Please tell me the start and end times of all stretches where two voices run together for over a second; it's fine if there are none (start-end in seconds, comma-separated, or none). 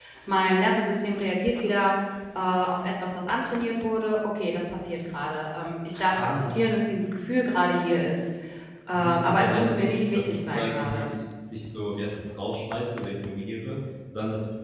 8.9-11.1